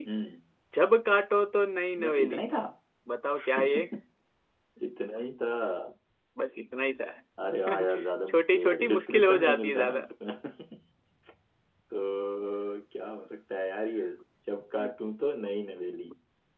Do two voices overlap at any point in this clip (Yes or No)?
Yes